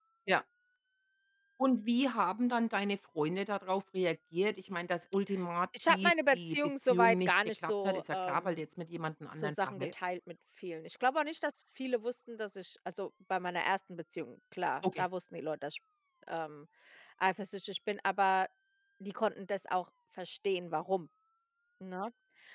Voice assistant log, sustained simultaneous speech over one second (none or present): present